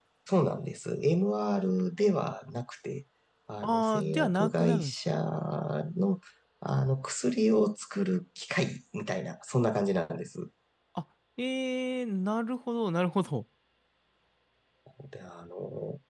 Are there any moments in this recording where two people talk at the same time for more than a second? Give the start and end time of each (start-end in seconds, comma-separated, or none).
3.6-4.9